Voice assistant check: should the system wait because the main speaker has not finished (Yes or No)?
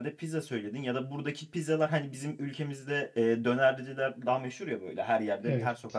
Yes